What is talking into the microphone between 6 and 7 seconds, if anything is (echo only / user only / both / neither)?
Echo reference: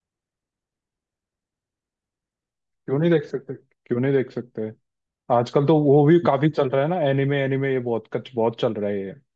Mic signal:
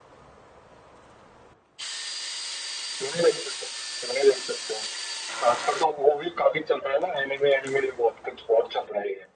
echo only